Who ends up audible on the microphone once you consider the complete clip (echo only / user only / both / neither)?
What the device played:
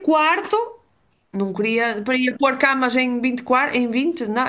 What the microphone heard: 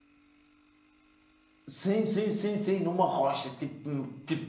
user only